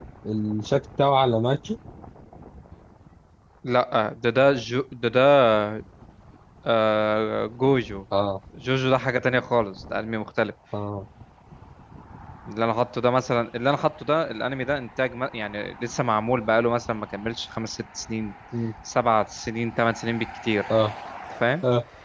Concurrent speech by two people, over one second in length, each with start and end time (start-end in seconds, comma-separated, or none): none